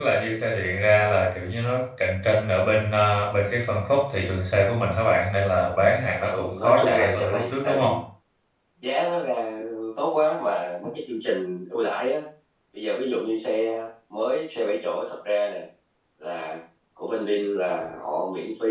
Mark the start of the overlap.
6 s

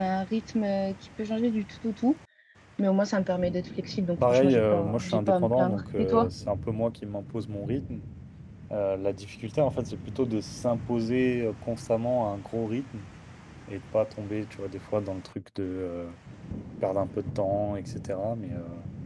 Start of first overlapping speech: 4 s

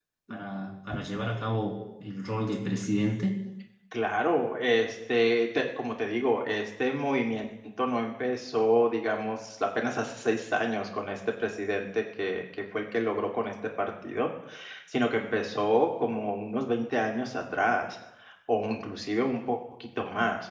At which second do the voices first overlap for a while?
none

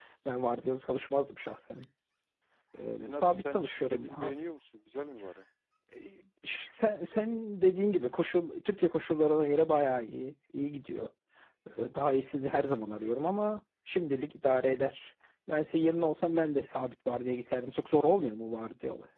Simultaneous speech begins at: 3 s

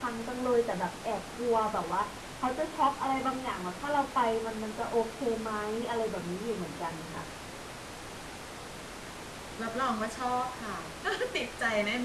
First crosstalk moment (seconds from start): none

